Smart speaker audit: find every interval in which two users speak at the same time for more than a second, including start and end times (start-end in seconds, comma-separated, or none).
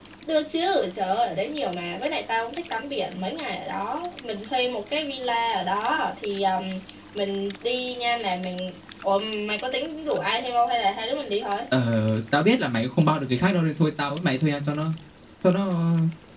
none